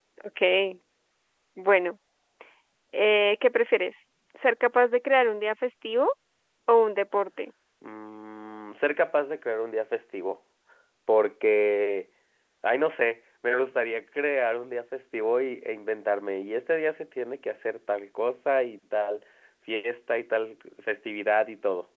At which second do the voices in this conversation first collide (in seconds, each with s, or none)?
none